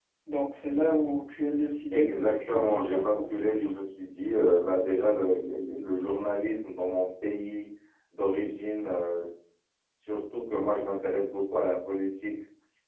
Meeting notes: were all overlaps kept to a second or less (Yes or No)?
No